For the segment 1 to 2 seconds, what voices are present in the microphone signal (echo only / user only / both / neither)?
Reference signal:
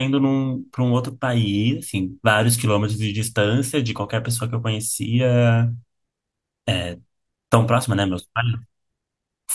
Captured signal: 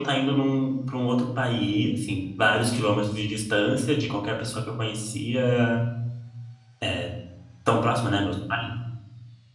echo only